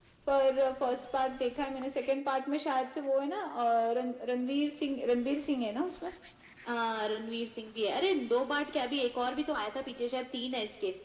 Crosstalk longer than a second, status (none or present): none